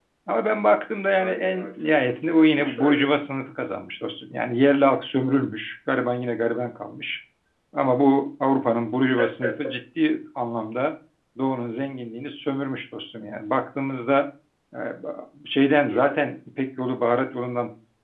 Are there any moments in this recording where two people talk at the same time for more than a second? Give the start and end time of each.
1.2-2.9

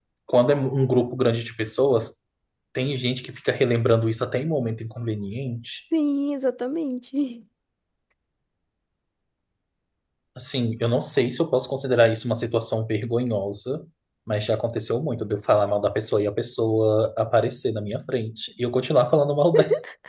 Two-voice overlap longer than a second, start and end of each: none

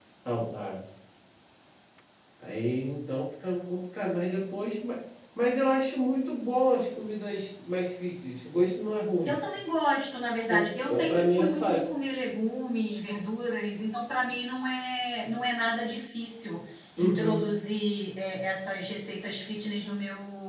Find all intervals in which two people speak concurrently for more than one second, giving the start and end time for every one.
10.5-11.8

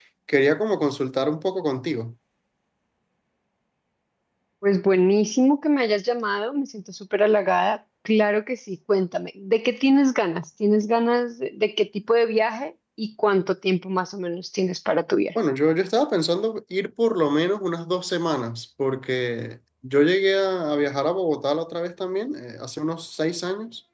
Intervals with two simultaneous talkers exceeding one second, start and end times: none

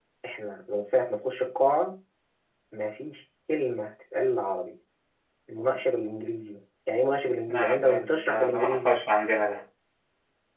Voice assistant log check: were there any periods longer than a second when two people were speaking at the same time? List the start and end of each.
7.5-9.0

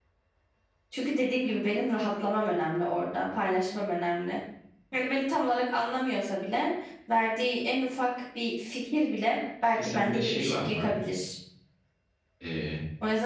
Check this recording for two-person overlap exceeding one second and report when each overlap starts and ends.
9.7-10.9

